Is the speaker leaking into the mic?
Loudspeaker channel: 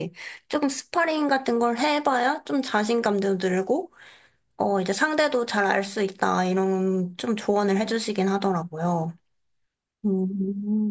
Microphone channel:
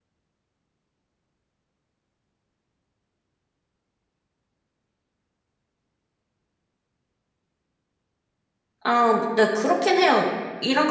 No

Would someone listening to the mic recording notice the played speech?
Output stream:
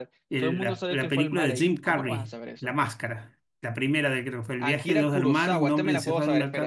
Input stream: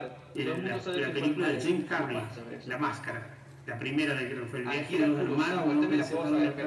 Yes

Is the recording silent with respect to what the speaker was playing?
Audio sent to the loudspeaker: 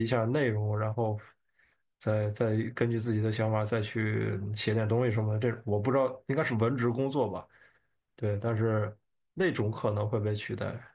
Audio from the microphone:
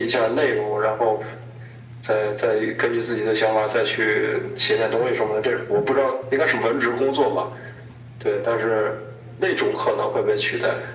No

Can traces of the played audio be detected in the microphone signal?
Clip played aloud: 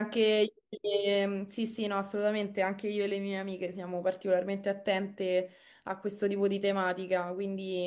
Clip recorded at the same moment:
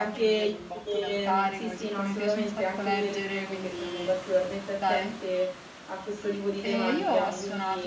Yes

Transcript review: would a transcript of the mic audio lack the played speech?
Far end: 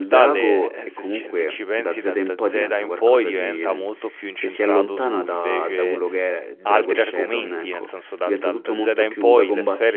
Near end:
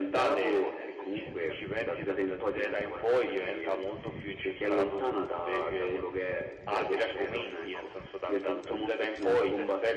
No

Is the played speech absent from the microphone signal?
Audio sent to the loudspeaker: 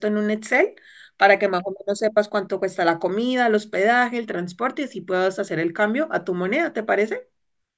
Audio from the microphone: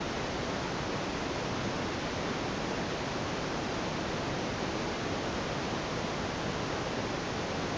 Yes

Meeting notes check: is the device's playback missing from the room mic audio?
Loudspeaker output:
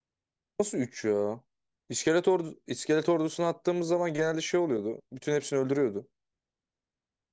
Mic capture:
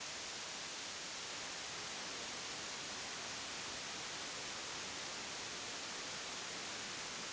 Yes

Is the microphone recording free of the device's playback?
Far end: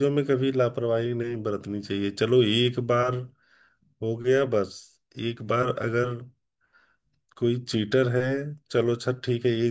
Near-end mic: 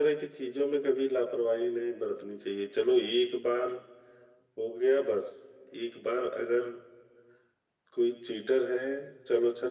No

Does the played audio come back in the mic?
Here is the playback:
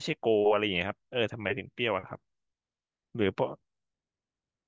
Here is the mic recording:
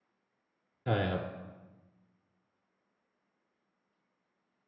No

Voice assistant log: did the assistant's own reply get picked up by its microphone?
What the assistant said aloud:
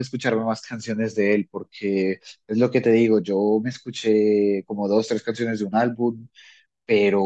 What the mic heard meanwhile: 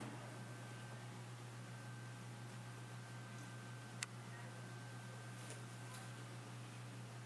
No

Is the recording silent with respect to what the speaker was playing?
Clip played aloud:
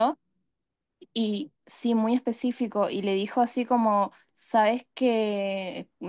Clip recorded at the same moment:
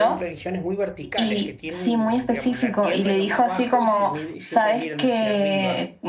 No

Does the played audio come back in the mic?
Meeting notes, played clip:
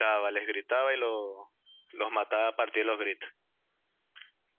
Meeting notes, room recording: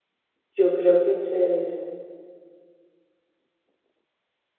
No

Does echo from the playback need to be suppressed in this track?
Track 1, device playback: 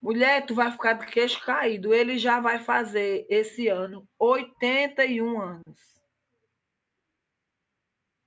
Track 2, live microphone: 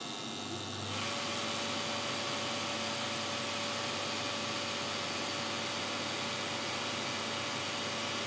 No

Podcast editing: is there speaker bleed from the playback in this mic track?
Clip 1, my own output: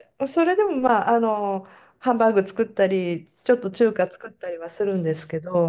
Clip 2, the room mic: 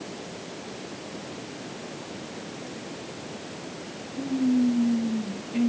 No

